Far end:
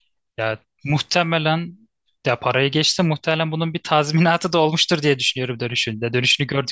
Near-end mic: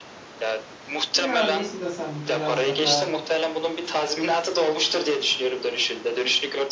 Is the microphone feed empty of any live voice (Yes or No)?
No